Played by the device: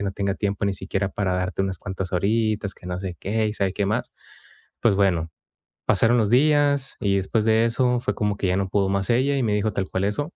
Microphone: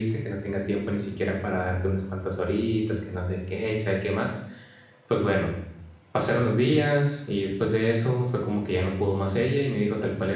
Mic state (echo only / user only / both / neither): echo only